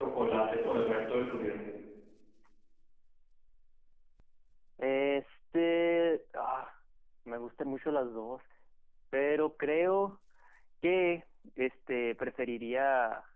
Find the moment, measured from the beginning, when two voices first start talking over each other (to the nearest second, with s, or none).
none